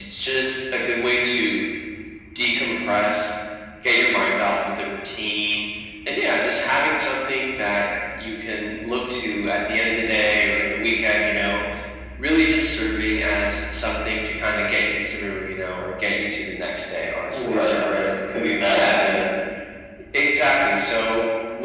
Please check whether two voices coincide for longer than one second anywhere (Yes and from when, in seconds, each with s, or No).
No